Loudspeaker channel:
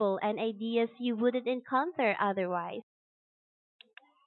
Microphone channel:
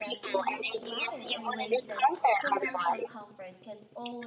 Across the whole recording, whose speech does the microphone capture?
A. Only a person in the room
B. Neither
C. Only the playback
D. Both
D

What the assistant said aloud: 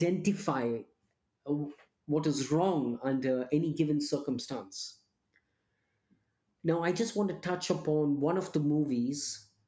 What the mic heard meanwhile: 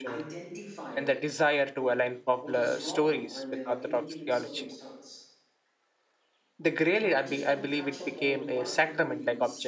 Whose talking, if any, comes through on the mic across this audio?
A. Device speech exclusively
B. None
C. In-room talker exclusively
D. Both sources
D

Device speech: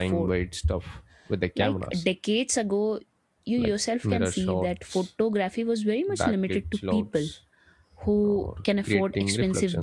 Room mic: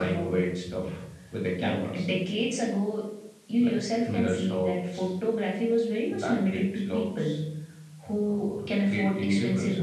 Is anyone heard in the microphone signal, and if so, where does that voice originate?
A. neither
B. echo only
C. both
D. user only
B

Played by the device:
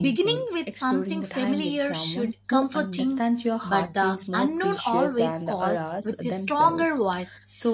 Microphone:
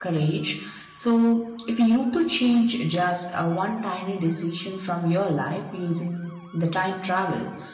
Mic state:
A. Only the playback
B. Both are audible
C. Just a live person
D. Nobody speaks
C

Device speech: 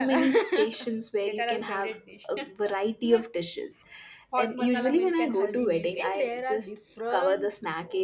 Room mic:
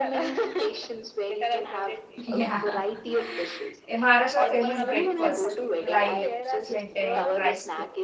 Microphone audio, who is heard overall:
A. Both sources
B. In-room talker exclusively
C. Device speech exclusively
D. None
A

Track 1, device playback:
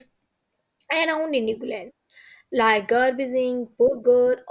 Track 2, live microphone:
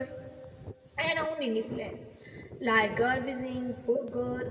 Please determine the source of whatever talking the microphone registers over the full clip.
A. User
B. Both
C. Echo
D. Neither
C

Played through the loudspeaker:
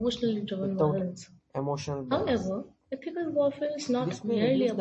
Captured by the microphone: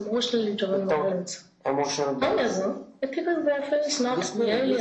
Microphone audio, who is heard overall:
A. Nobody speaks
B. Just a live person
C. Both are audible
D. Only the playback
D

